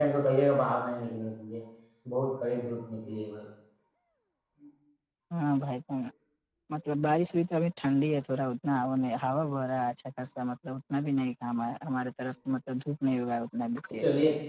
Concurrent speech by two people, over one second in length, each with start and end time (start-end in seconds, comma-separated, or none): none